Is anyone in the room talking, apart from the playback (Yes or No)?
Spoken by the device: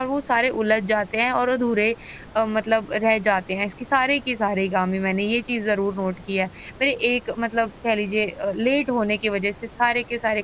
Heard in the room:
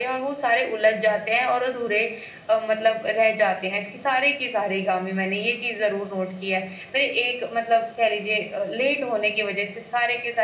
No